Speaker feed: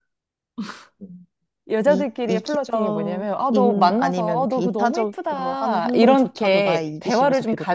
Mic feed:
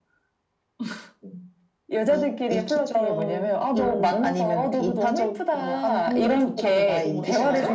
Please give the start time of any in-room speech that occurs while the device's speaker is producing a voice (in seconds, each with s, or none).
6.5 s